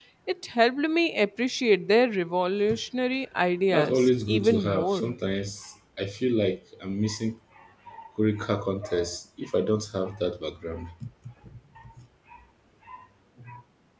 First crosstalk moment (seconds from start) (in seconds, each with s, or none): 3.7 s